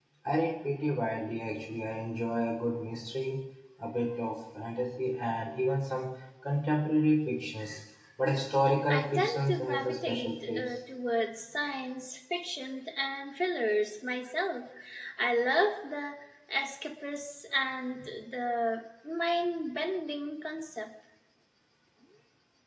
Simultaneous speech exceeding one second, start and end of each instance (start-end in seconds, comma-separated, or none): 8.9-10.8